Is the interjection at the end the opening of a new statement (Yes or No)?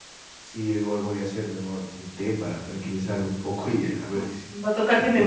Yes